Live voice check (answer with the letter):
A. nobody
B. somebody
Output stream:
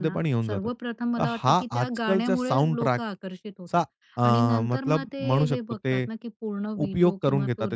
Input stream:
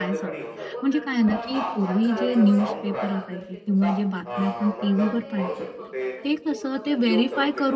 B